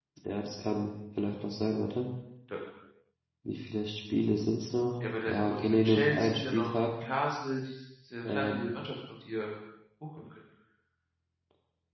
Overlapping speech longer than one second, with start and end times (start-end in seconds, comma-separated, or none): 5.2-6.7